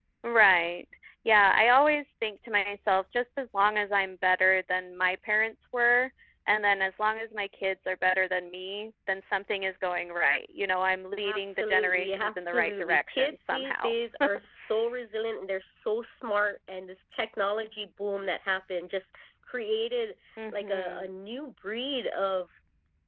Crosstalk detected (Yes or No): Yes